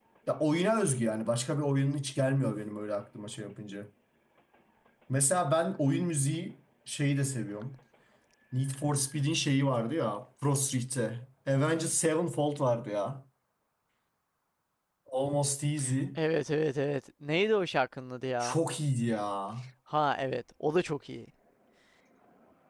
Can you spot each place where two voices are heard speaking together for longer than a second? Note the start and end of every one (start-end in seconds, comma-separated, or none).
none